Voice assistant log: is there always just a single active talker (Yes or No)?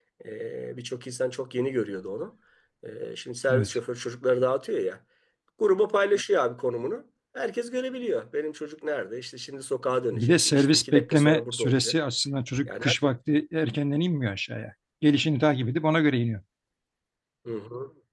No